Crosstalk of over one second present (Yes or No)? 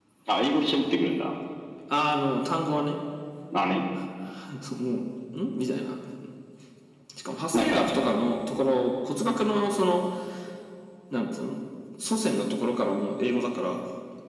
No